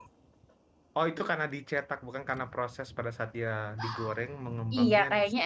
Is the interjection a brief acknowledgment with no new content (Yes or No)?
No